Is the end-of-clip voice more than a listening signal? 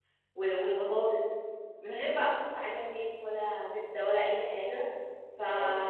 Yes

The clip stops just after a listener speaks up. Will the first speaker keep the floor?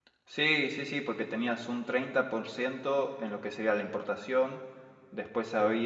Yes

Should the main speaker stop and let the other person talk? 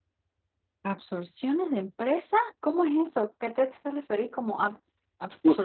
Yes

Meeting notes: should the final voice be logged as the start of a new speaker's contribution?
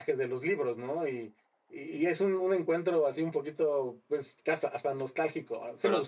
Yes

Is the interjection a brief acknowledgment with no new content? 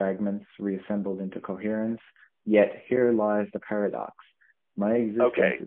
No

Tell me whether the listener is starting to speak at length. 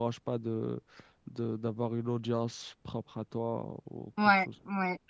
Yes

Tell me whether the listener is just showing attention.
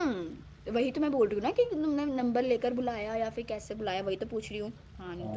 No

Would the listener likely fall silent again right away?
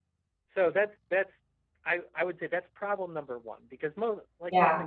Yes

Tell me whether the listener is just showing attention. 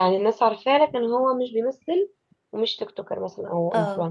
No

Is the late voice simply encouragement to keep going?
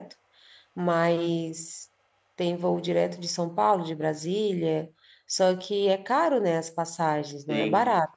No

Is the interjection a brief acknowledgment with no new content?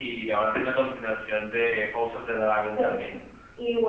No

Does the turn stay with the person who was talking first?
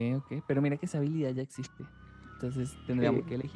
Yes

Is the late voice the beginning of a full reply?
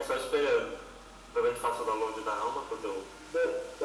Yes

